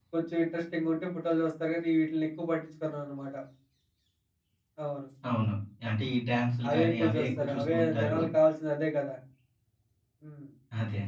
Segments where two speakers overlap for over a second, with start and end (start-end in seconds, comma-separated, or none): 6.7-8.2